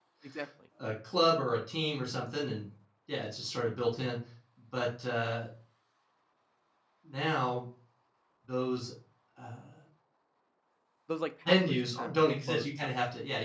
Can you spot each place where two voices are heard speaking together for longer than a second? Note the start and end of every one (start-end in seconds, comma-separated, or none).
11.5-12.9